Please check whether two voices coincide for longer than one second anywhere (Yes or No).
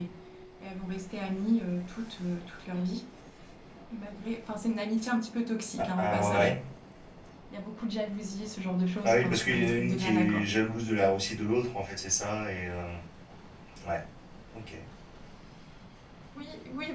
Yes